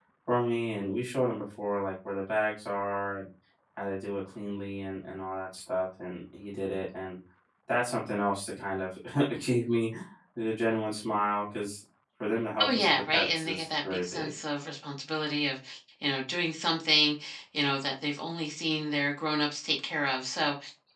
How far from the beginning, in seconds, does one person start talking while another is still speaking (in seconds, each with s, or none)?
12.6 s